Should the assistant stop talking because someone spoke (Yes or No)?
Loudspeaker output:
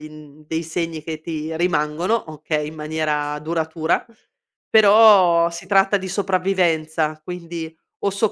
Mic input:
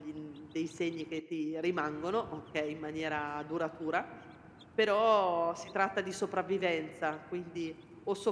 No